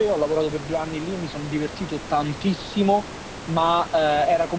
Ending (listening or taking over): listening